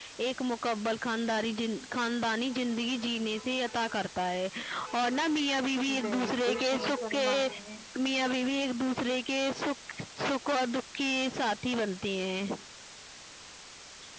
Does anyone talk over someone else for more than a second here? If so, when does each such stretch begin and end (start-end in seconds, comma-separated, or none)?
6.1-7.5